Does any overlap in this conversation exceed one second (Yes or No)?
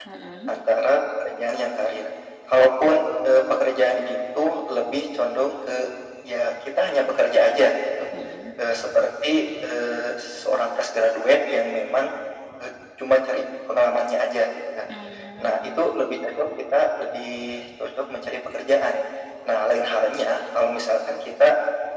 No